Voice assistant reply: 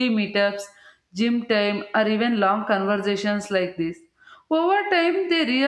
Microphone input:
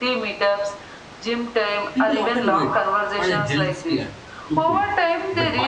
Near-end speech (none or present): present